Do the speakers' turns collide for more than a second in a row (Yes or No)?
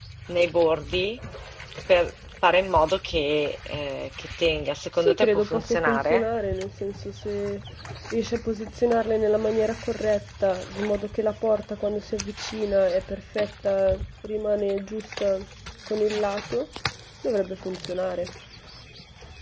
Yes